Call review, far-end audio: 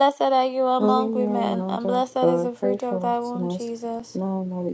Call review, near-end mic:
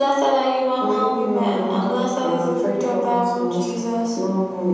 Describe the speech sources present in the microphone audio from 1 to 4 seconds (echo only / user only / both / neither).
echo only